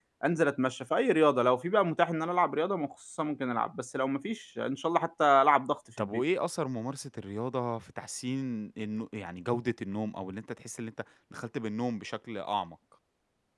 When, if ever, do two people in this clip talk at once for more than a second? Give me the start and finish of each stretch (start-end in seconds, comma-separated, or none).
none